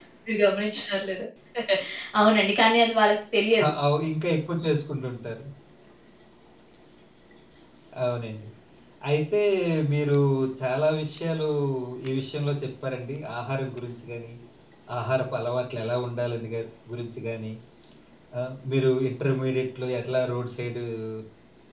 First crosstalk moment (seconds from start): none

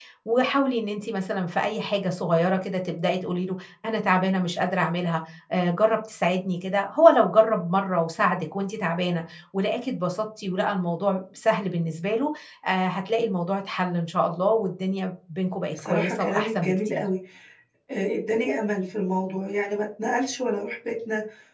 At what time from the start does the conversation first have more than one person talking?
15.7 s

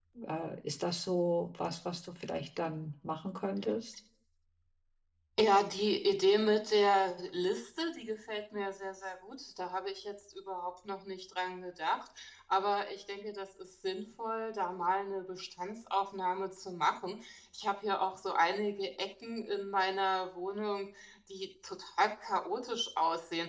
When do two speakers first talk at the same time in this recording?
none

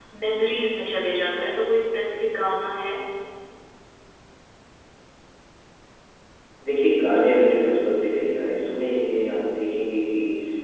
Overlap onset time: none

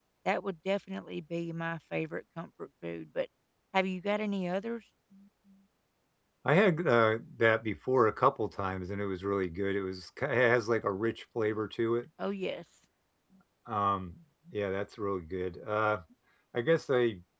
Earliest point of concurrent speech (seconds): none

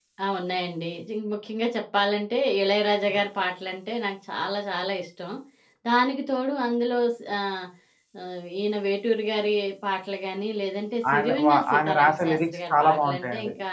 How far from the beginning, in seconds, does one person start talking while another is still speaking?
11.0 s

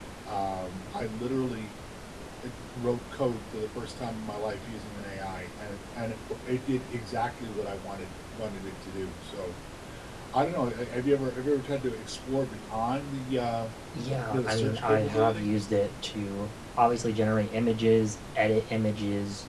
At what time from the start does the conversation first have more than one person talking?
14.3 s

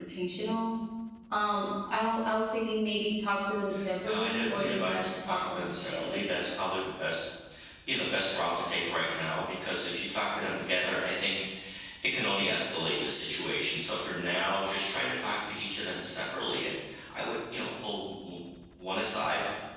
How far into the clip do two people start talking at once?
4.0 s

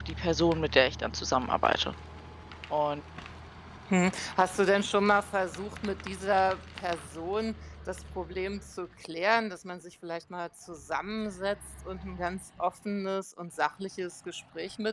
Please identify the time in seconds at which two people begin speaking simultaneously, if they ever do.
none

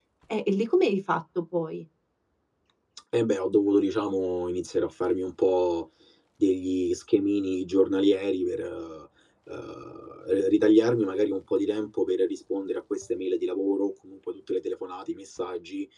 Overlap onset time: none

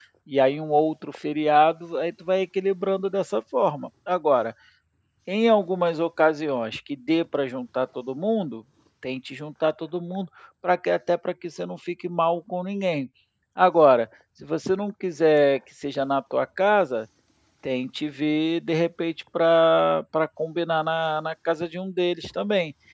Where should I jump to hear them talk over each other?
none

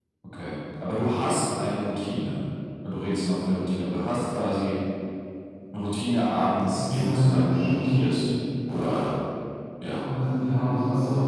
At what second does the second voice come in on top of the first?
6.7 s

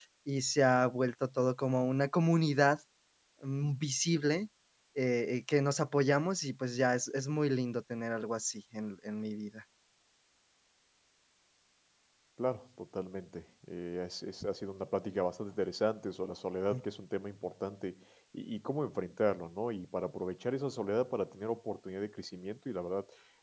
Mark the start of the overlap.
none

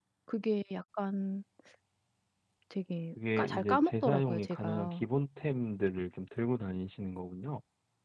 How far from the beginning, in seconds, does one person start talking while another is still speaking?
3.4 s

